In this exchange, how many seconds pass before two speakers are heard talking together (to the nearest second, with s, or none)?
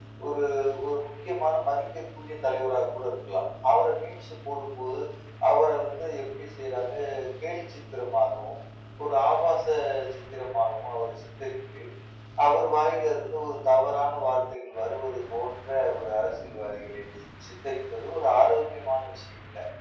none